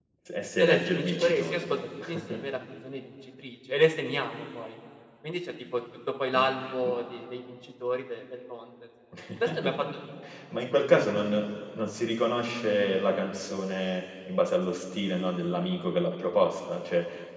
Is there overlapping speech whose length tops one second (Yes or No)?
Yes